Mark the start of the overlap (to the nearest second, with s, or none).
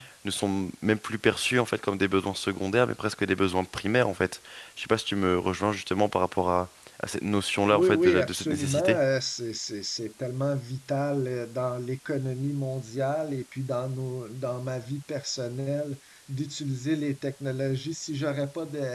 8 s